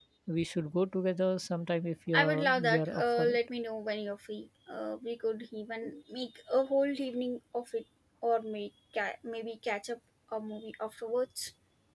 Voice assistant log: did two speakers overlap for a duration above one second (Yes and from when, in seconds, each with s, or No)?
Yes, from 2.1 s